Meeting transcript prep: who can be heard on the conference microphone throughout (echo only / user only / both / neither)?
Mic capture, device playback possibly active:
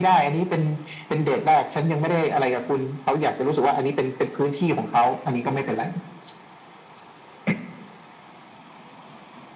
echo only